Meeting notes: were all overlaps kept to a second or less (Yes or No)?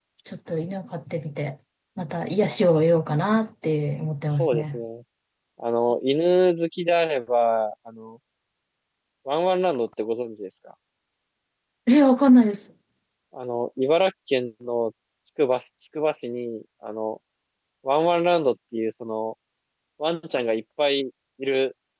Yes